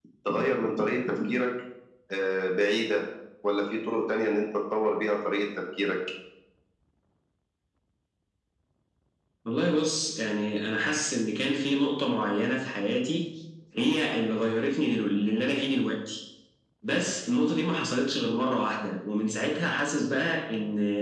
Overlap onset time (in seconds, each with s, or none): none